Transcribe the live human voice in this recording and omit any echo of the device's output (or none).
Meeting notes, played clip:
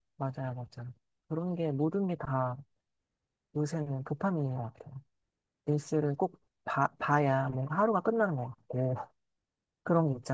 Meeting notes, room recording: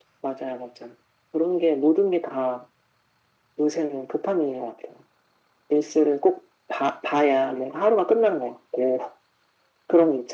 none